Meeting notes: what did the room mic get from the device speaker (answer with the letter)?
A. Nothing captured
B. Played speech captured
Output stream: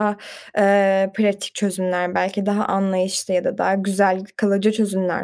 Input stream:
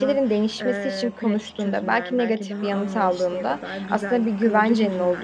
B